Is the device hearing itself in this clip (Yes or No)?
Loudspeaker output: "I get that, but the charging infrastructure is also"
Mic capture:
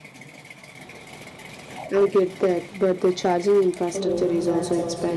Yes